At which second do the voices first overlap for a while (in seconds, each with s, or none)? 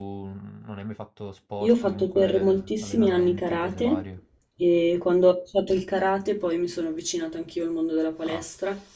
1.6 s